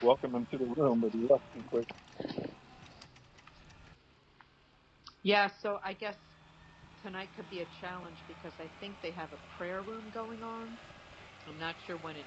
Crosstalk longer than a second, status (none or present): none